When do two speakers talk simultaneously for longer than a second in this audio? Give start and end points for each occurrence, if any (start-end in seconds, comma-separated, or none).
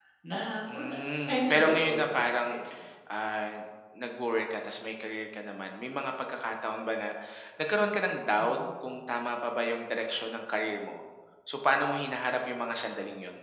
1.3-2.6